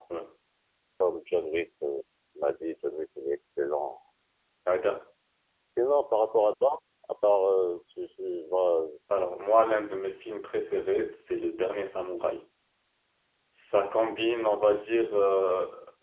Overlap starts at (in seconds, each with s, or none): none